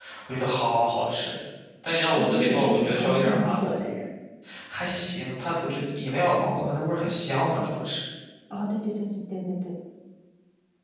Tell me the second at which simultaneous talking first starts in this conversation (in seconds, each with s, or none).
2.1 s